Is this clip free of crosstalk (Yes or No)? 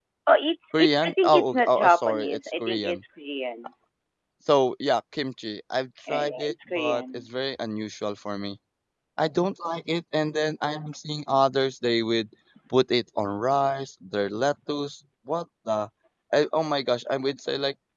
No